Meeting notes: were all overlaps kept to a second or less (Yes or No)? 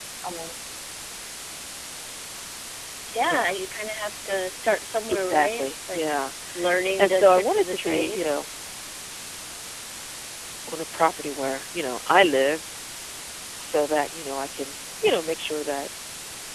No